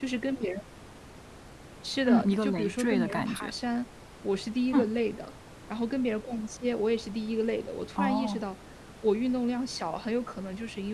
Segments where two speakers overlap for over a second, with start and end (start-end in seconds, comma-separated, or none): 2.0-3.5